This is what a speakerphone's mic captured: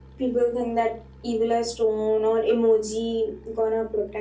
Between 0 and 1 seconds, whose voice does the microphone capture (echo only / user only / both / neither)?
echo only